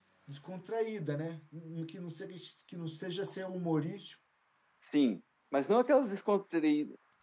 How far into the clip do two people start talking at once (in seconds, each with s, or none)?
none